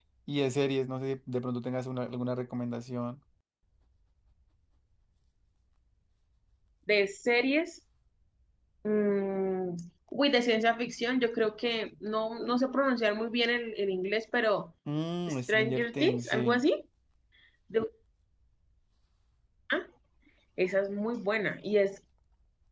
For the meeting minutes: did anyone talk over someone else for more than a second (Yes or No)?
Yes